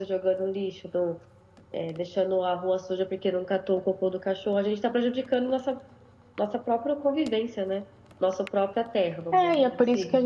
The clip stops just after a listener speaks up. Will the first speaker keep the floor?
No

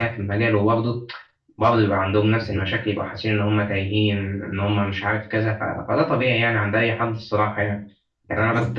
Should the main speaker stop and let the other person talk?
No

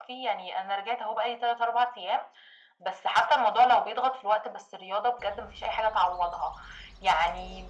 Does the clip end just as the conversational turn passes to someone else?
No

